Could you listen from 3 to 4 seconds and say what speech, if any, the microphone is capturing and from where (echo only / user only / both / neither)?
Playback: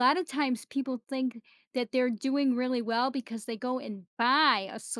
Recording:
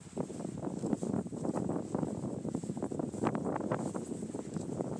neither